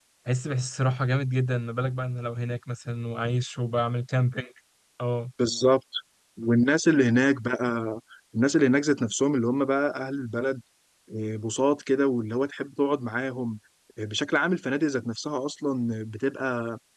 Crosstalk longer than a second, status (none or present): none